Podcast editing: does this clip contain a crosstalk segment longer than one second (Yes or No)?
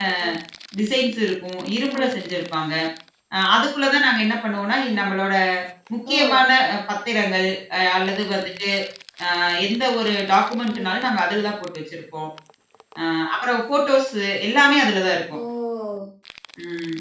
No